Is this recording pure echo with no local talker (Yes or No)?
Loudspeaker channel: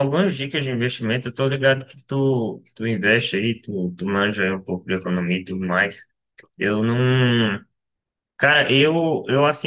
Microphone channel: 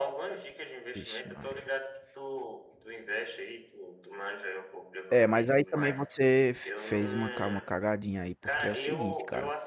No